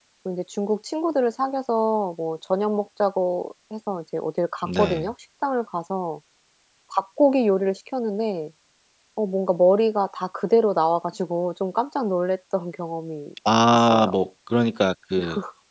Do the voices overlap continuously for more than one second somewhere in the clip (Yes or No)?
No